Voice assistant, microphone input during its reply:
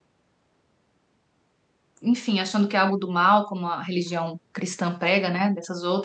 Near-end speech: present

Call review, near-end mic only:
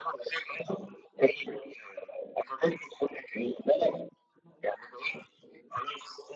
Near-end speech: none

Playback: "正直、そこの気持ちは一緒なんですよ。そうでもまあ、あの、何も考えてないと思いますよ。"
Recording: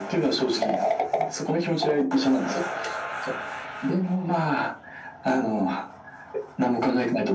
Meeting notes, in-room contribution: none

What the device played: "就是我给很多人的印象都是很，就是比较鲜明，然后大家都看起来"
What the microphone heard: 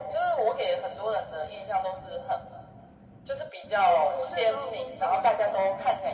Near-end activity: present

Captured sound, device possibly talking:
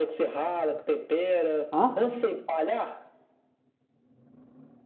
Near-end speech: present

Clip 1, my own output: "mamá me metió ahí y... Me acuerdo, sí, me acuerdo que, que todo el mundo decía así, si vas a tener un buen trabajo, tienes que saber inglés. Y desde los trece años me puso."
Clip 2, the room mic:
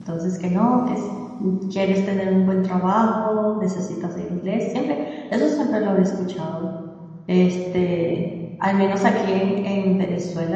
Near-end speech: present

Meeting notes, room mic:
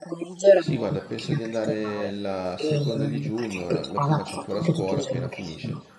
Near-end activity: present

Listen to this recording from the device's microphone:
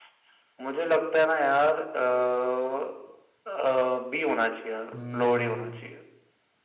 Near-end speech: present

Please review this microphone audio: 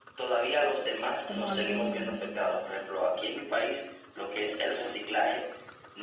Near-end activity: present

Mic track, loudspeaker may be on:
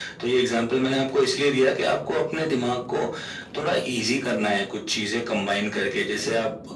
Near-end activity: none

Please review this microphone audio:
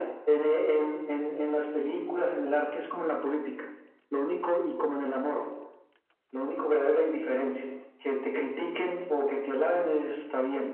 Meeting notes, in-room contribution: none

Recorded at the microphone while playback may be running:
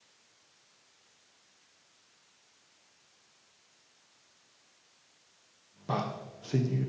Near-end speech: present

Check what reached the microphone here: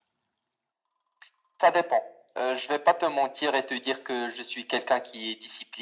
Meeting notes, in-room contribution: none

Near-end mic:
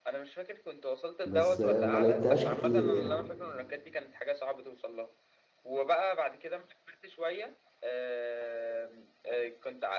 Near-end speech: present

